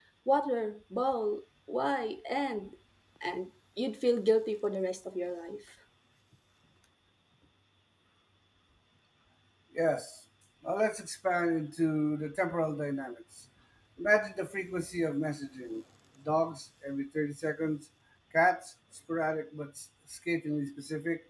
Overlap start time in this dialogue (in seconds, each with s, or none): none